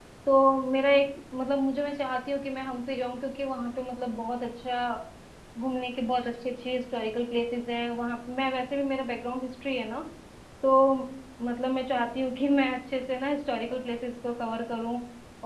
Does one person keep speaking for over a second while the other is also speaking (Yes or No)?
No